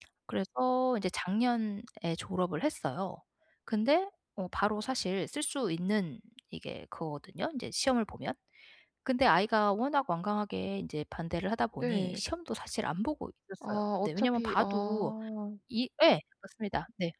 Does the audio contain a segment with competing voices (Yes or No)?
Yes